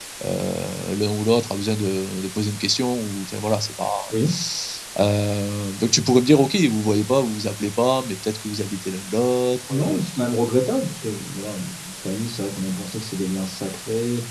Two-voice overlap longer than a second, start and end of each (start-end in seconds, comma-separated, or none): none